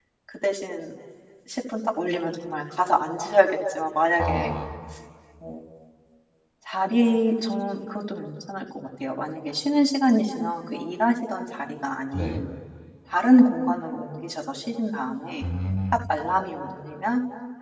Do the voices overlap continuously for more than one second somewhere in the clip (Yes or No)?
No